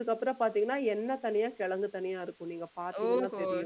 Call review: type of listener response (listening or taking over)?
taking over